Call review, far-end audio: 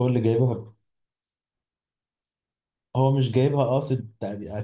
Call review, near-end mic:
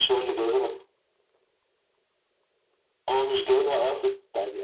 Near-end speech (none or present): none